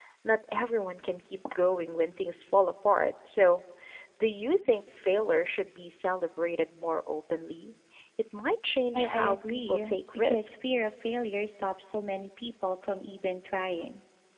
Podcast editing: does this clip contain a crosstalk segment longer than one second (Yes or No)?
Yes